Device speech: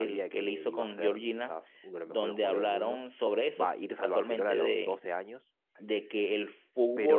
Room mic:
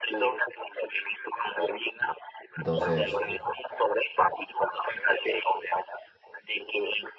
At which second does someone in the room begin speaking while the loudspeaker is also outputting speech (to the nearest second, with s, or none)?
3 s